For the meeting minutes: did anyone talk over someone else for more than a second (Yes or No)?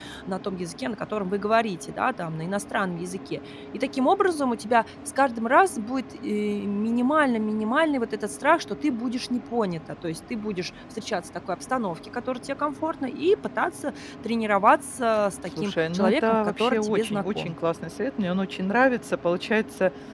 Yes